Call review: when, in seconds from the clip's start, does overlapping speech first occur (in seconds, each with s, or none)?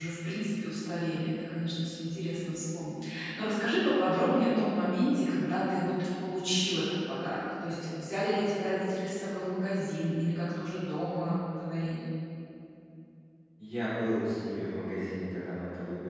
none